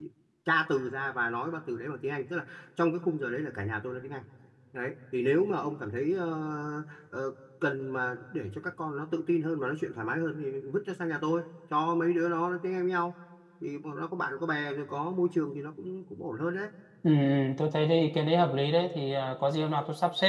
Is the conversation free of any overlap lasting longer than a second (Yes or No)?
Yes